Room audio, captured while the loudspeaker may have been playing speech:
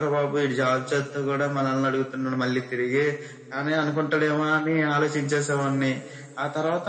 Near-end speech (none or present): none